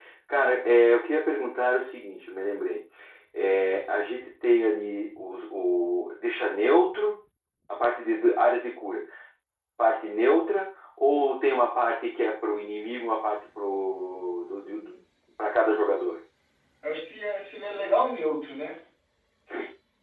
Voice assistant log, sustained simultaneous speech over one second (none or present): none